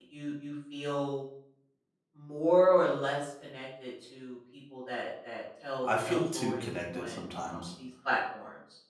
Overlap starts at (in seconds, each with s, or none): 5.8 s